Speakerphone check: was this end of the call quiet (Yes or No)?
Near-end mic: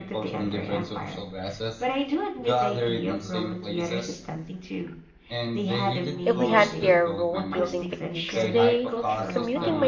No